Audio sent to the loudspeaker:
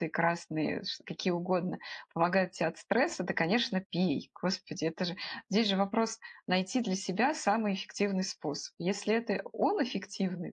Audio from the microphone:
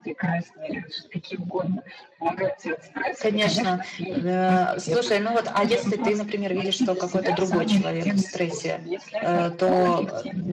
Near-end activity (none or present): present